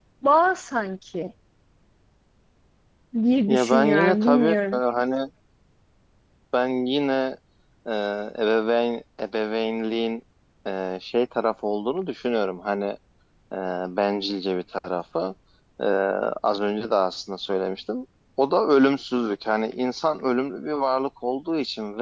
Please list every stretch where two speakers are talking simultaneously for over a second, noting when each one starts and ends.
3.5-4.8

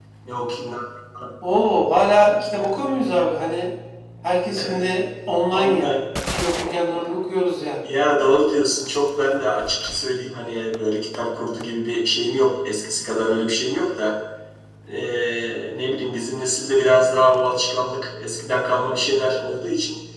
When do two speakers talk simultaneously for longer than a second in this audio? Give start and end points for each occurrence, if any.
none

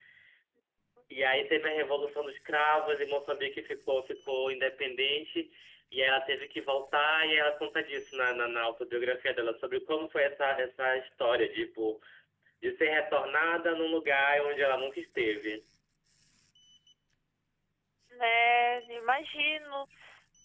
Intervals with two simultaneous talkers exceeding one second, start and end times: none

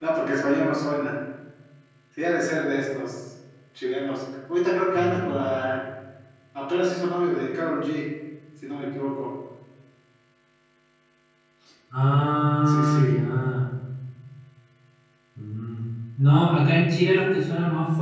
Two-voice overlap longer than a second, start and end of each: none

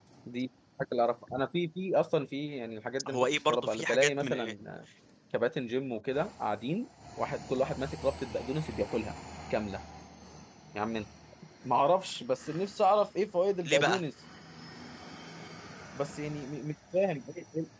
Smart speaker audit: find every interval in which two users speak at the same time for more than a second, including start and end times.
3.1-4.5

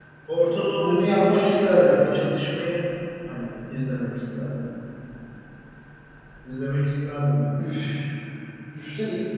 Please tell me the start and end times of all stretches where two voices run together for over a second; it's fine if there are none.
0.8-2.0

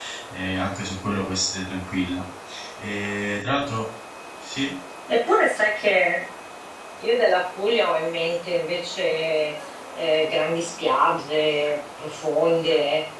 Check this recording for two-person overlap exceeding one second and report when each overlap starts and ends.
none

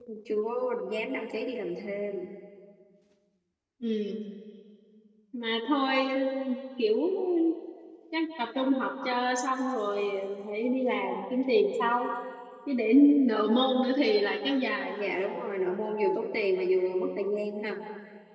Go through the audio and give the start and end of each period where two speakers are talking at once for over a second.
none

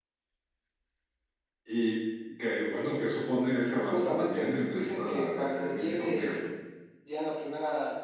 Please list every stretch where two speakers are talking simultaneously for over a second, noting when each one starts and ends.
3.9-6.4

